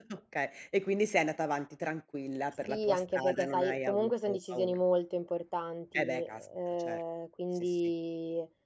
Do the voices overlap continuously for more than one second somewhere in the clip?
Yes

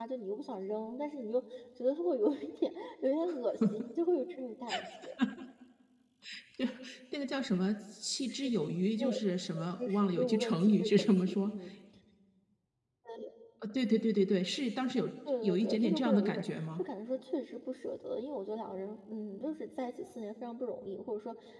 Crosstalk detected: Yes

